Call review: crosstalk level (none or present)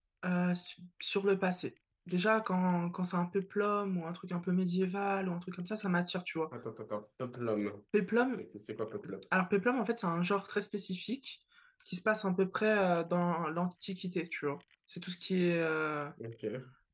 none